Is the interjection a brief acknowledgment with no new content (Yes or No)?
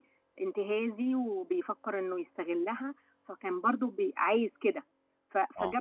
Yes